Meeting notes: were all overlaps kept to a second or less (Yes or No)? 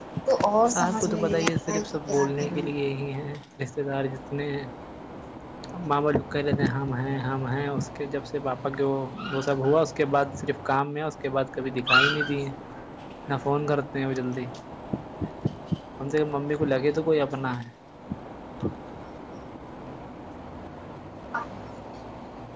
No